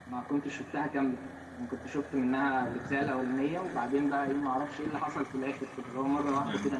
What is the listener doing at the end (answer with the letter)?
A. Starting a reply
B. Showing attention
B